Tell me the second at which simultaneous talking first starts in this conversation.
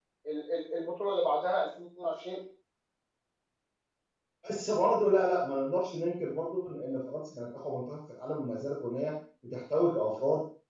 none

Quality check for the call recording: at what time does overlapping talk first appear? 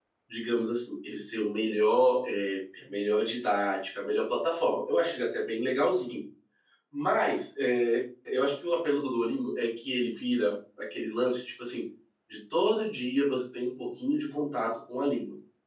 none

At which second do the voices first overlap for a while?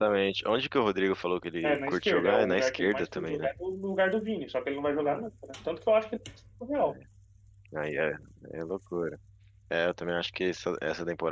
2 s

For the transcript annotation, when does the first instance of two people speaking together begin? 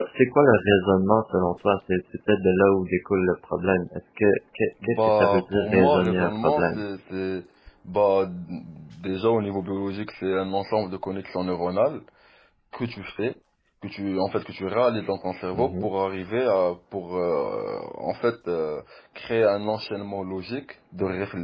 5 s

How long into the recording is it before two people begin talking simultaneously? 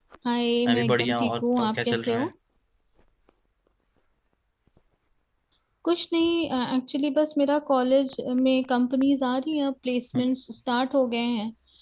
1 s

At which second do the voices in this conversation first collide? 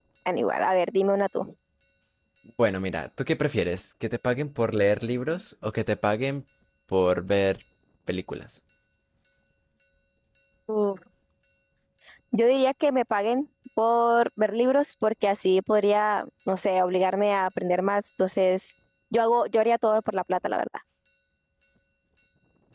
none

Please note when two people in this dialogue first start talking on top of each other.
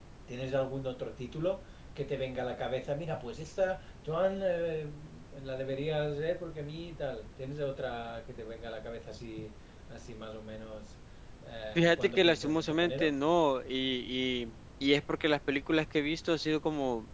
12 s

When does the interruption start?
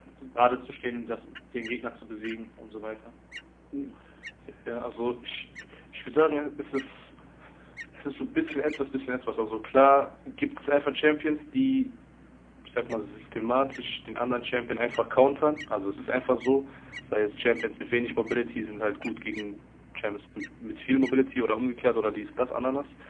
none

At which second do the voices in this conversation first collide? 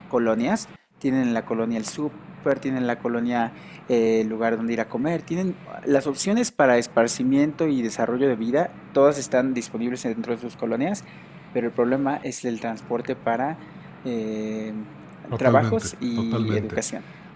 15 s

